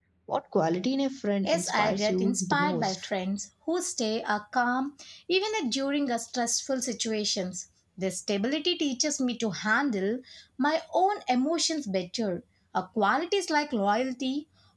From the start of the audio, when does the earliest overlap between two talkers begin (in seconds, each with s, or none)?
1.4 s